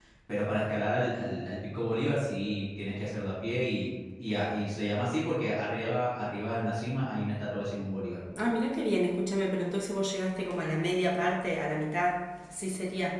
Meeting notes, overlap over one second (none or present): none